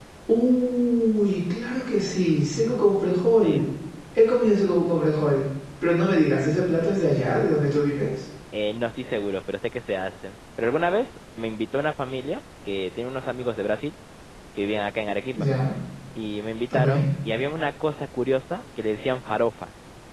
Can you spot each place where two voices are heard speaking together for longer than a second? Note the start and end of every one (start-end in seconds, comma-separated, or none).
none